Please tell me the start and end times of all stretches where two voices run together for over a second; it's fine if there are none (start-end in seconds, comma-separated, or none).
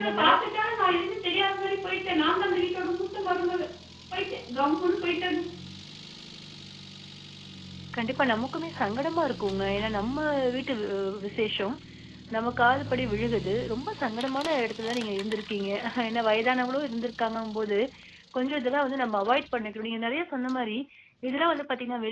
none